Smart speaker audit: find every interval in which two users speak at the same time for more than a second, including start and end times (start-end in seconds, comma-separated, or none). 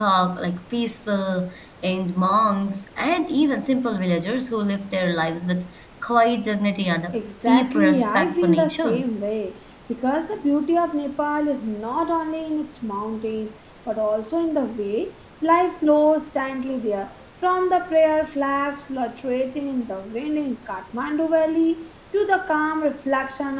7.1-9.0